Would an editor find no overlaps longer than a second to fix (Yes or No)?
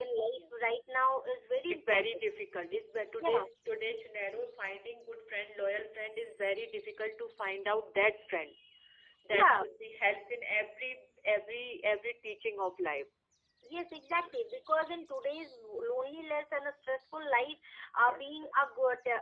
Yes